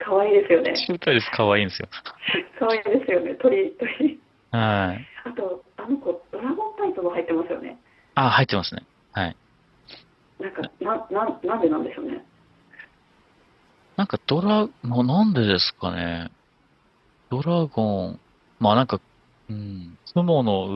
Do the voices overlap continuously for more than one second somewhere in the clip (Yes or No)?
No